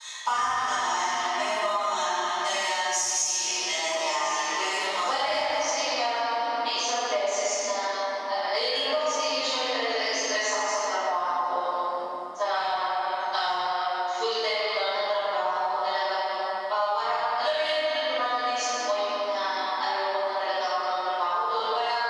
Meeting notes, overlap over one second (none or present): present